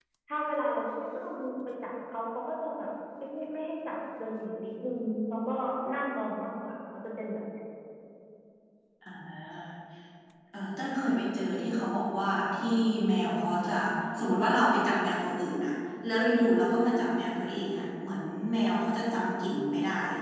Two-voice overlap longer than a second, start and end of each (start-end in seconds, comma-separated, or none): none